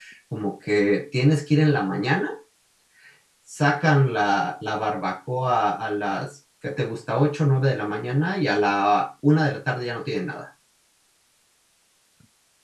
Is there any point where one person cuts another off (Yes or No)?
No